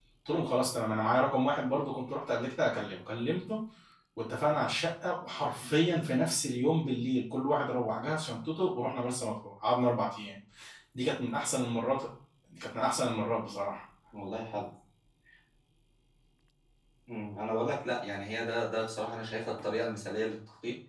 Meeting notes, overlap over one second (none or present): none